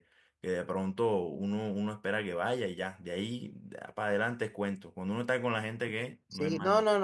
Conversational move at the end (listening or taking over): taking over